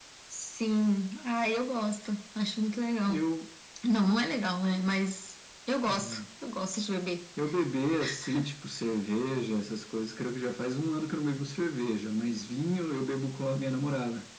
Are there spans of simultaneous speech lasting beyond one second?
No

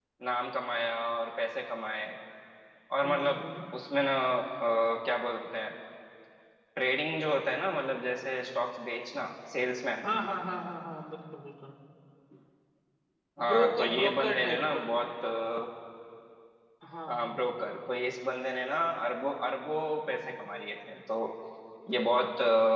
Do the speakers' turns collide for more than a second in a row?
Yes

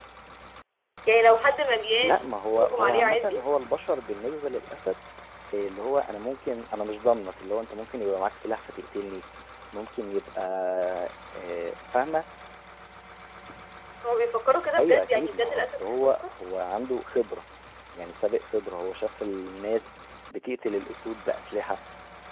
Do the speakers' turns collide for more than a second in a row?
Yes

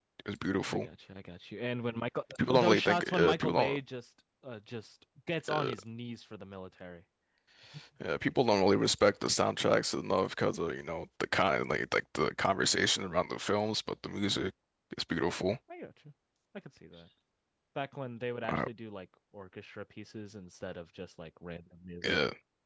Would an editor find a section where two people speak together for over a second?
Yes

